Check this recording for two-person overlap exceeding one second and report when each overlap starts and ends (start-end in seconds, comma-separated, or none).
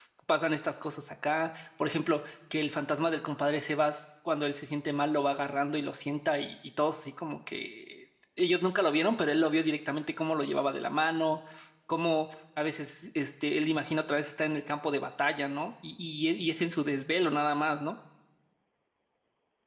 none